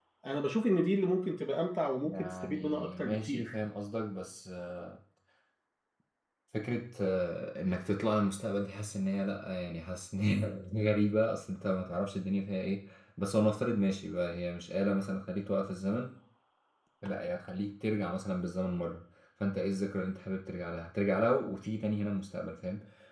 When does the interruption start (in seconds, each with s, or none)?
2.0 s